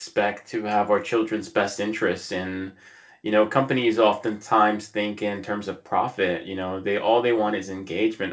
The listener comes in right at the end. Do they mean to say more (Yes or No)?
No